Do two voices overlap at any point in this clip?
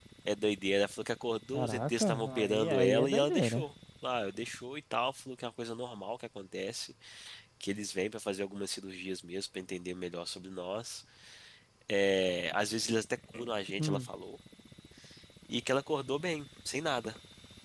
Yes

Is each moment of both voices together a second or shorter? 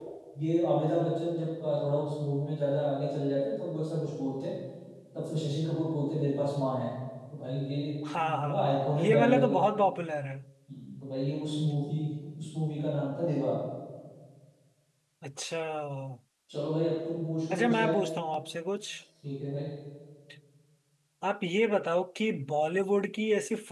No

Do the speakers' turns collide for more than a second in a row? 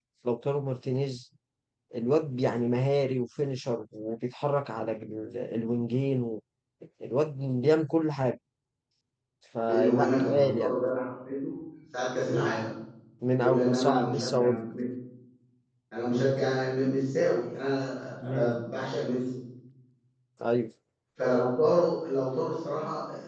Yes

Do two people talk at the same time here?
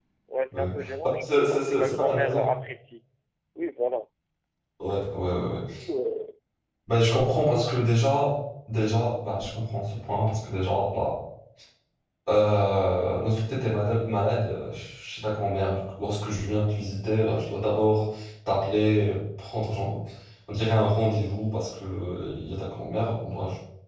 Yes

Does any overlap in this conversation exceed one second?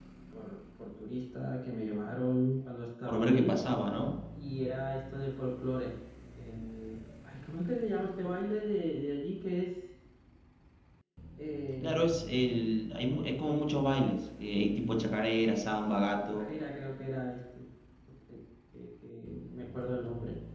No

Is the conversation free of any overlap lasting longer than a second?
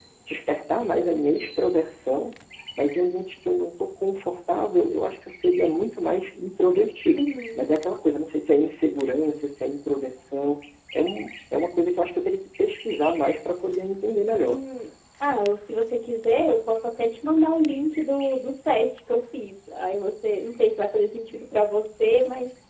Yes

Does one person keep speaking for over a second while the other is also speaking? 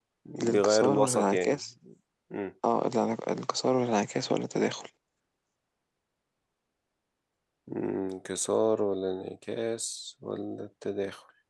Yes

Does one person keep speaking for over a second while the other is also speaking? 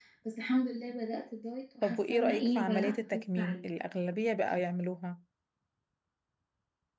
Yes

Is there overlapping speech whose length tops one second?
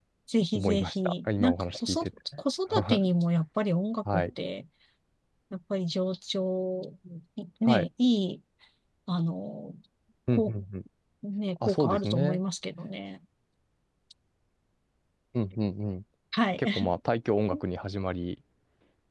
Yes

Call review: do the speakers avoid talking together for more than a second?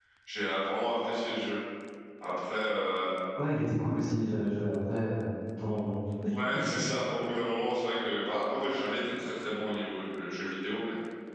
Yes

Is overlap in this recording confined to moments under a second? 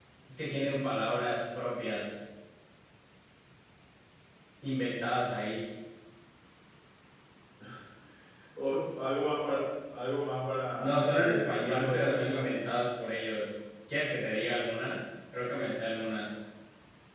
No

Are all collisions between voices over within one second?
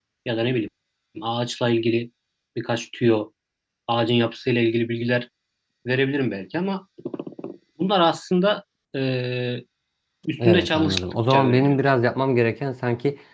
No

